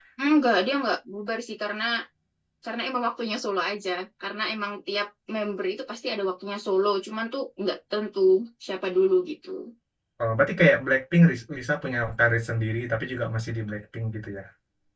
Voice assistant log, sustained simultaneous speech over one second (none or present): none